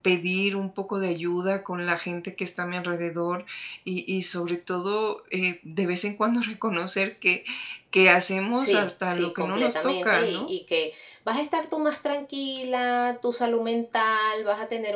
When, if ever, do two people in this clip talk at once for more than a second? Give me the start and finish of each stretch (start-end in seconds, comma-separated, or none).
8.6-10.5